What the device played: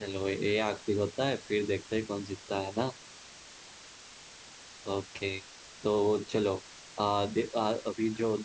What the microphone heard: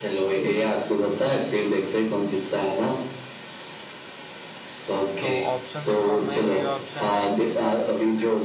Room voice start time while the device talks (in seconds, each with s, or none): 5.2 s